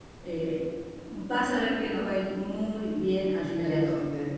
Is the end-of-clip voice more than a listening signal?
Yes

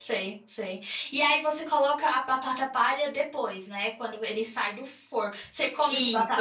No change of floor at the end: No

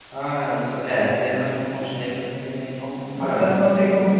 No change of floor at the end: No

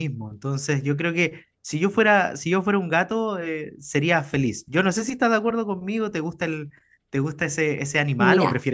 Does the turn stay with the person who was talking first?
No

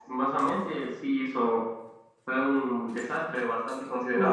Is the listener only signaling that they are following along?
Yes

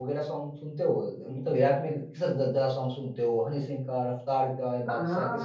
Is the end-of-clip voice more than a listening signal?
Yes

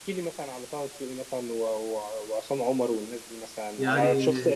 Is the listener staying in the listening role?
Yes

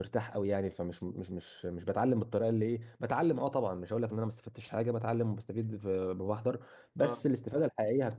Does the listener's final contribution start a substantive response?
No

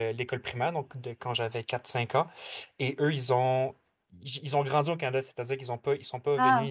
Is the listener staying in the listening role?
Yes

